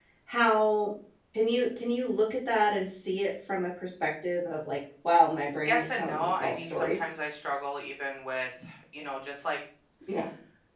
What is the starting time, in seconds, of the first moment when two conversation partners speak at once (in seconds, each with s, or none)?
5.7 s